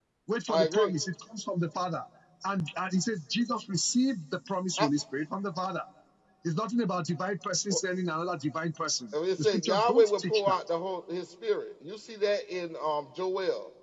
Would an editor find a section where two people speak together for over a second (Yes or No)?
Yes